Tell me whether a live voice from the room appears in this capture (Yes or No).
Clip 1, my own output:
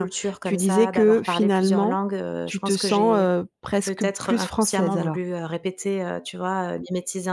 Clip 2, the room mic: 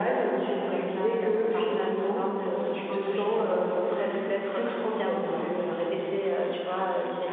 No